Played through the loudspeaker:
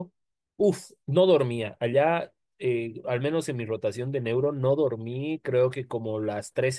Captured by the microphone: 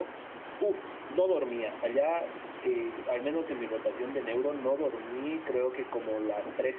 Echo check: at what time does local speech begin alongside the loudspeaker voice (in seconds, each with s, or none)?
none